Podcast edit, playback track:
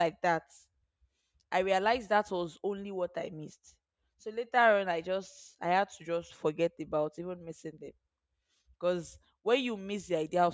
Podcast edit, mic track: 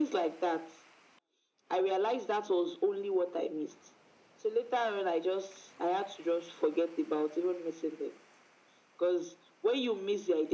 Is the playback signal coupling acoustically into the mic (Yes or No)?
Yes